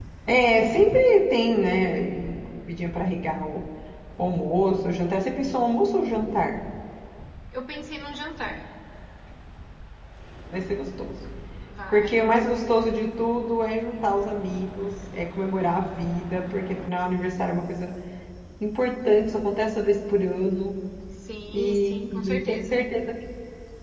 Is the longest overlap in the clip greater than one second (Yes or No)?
Yes